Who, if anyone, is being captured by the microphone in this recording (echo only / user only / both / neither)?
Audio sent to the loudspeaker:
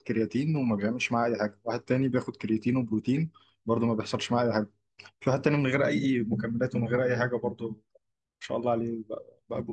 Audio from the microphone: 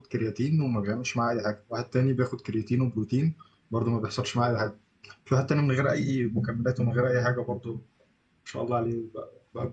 echo only